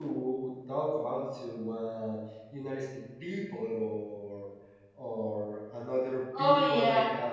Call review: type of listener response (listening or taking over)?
listening